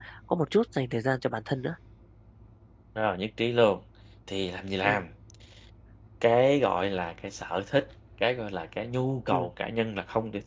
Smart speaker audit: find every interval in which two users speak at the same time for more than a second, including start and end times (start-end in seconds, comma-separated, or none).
none